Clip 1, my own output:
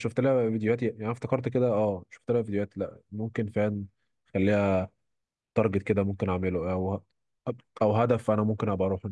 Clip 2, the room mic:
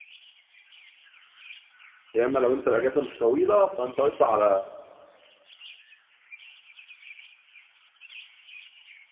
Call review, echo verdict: none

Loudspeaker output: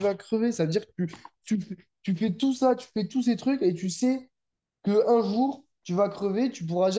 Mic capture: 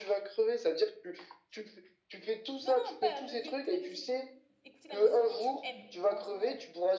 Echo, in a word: present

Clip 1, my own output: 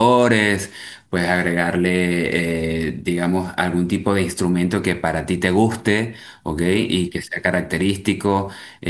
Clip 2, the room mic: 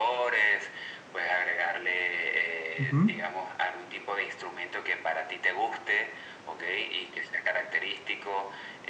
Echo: present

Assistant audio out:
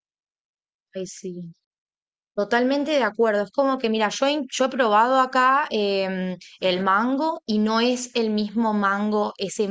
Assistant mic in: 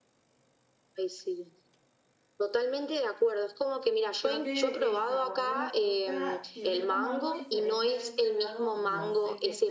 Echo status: present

